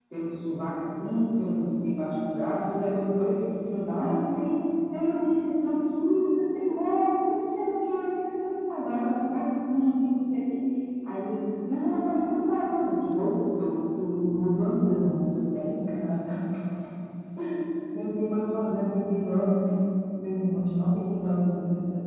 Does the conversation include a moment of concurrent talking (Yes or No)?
No